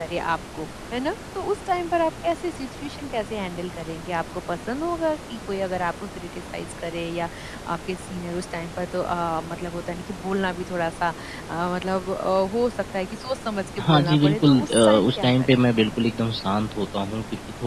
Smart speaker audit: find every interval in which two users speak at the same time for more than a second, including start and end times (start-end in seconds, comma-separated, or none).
13.8-16.0